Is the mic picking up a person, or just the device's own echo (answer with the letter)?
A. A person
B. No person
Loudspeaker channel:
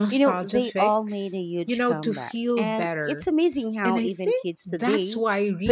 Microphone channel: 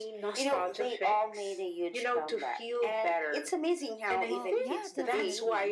A